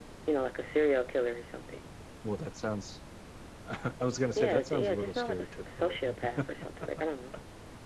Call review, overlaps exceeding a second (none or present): present